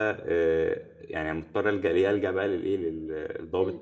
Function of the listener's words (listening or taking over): listening